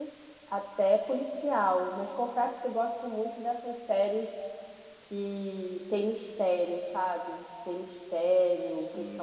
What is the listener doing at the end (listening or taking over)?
listening